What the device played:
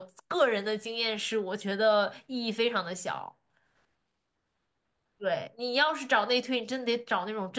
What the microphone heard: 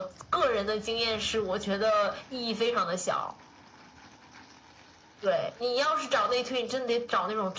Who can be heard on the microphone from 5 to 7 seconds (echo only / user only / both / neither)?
echo only